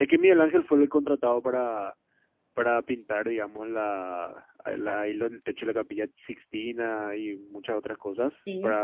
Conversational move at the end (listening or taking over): listening